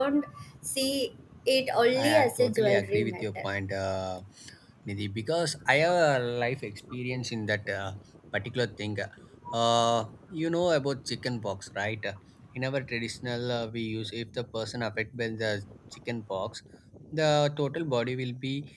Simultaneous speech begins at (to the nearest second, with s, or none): 2 s